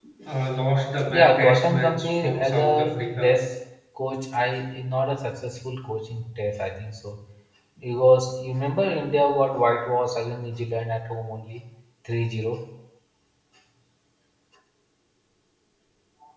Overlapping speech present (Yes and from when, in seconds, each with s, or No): Yes, from 1.1 s